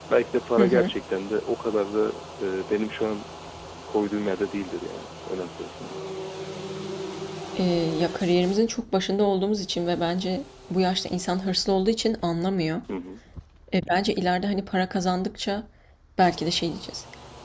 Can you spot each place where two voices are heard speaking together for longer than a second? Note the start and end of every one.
none

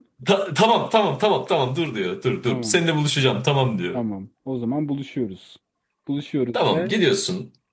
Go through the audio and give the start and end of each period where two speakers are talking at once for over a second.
none

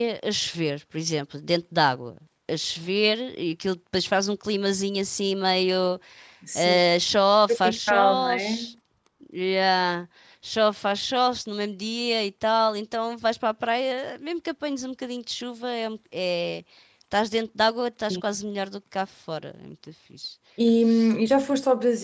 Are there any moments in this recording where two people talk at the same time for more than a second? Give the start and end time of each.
7.5-8.7

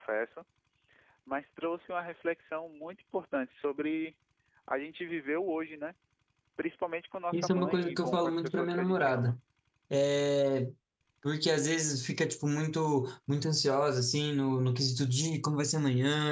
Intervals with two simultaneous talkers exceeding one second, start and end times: 7.3-9.4

